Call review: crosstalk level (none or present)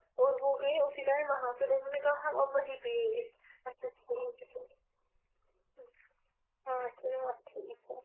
none